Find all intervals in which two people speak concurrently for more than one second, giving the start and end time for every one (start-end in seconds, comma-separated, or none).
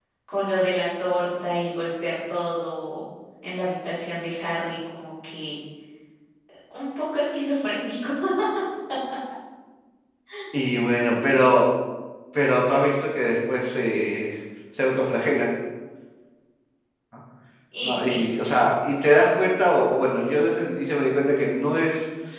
none